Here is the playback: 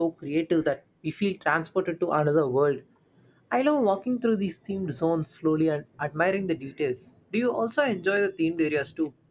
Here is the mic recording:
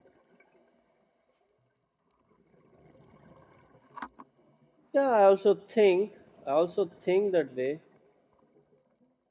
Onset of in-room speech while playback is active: 4.9 s

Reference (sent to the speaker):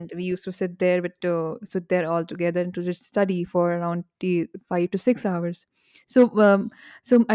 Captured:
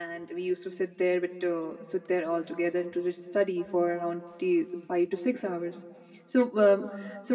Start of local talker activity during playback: none

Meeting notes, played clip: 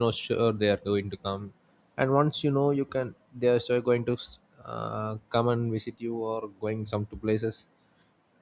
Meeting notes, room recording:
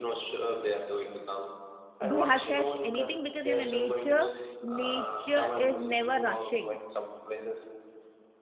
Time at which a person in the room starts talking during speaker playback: 2.0 s

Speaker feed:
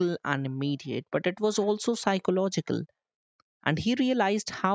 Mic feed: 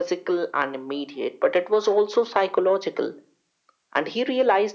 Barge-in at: none

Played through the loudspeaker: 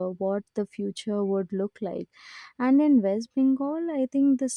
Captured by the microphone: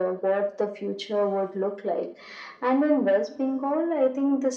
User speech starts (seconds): none

